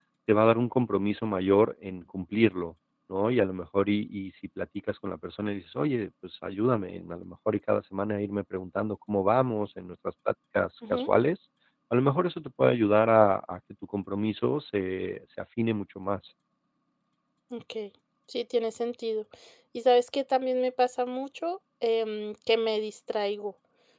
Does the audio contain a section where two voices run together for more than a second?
No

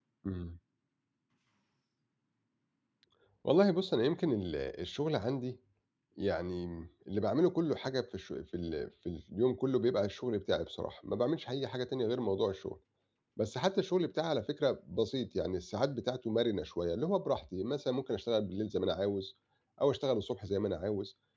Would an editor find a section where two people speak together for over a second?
No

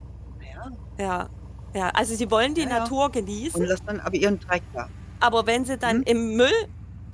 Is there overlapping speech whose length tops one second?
No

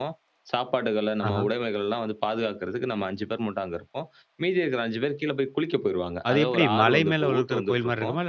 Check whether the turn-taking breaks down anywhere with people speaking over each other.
Yes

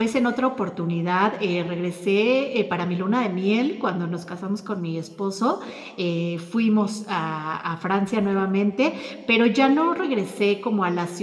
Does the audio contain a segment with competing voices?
No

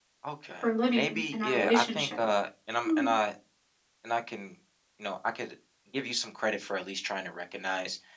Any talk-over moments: Yes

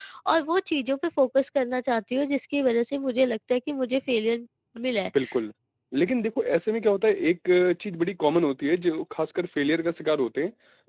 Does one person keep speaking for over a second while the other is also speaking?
No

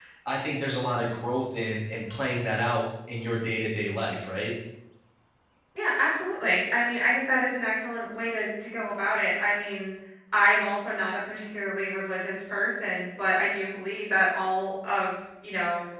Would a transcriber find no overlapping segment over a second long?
Yes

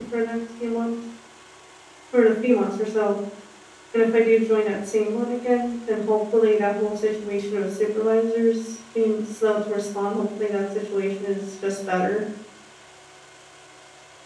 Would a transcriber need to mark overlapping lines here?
No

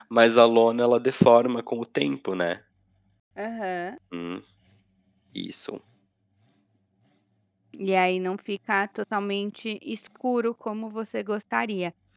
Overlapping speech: No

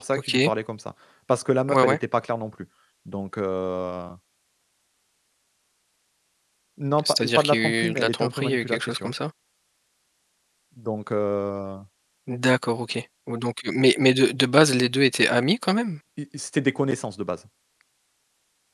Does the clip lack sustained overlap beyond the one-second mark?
No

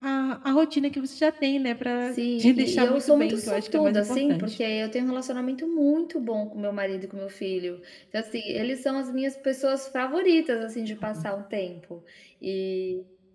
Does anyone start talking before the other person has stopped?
Yes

